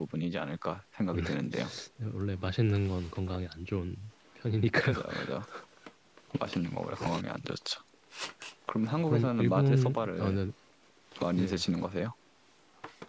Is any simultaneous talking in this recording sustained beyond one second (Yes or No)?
Yes